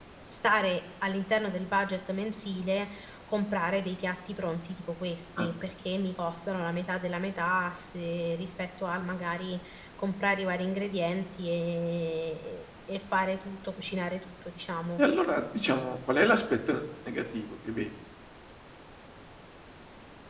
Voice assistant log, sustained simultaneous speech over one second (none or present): none